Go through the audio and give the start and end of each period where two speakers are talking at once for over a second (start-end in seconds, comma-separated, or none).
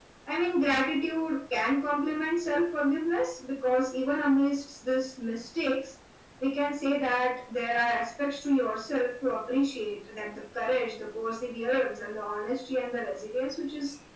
none